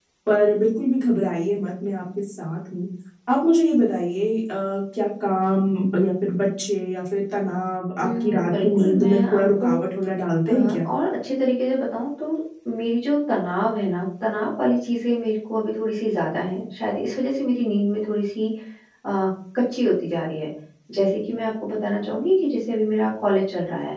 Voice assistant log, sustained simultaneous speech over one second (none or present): present